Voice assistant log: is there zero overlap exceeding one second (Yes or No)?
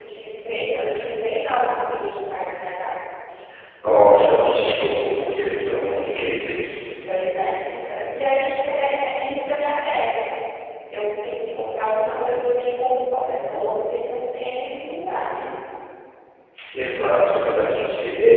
Yes